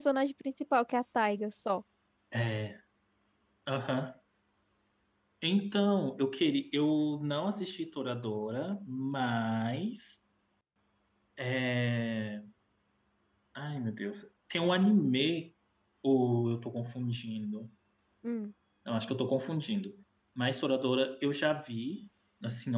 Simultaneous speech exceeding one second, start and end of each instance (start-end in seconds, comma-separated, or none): none